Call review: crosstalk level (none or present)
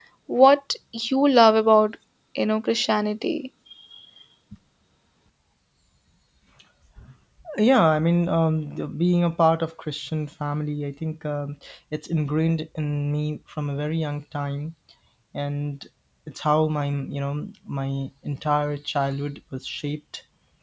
none